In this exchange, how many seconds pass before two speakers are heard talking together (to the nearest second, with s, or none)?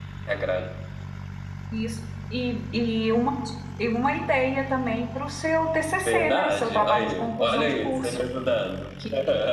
6 s